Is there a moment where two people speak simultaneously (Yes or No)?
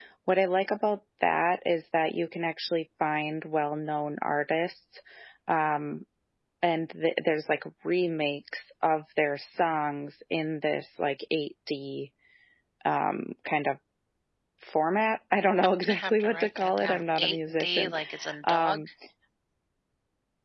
Yes